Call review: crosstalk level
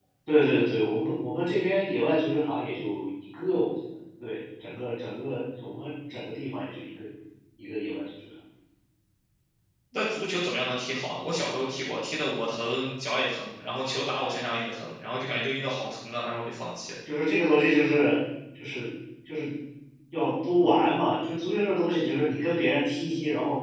none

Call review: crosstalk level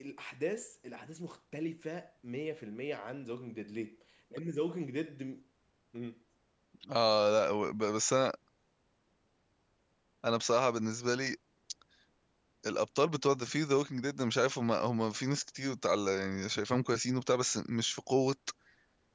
none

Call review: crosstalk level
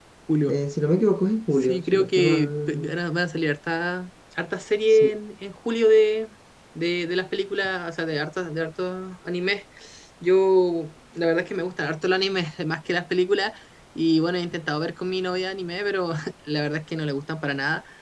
present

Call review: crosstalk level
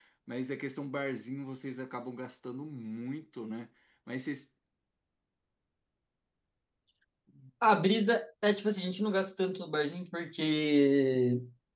none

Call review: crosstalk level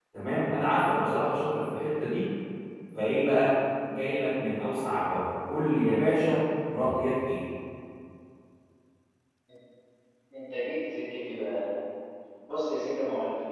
none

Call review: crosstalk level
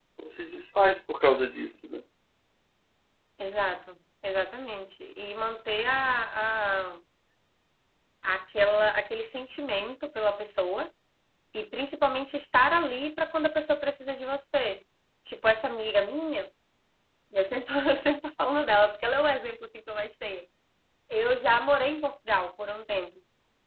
none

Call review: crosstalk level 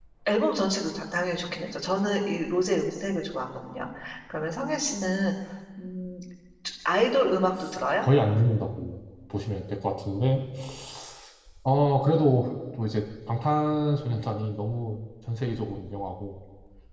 none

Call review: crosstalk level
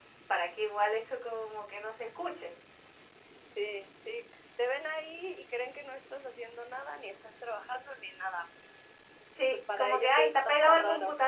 present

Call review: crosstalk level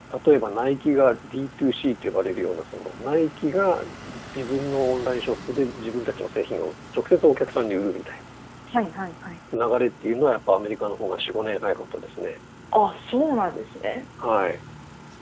none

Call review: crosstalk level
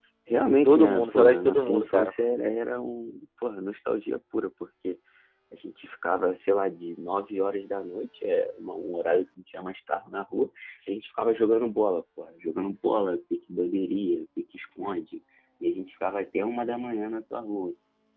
present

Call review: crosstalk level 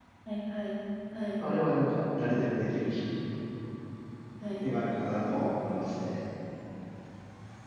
none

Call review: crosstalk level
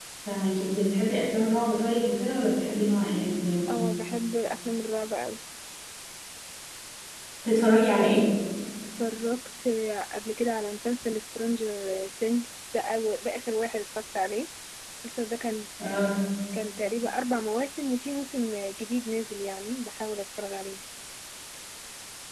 none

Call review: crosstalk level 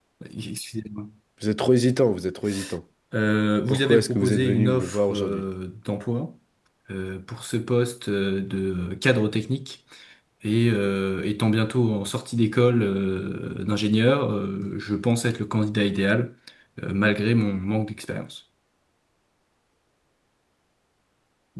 present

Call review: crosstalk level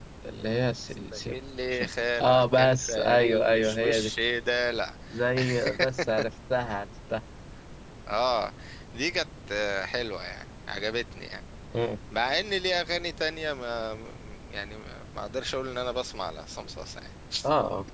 present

